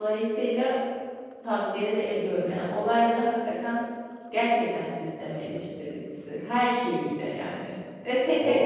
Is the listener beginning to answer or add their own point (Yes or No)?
No